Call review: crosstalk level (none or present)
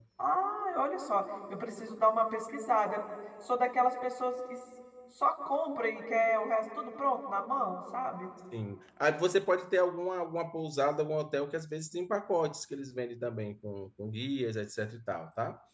none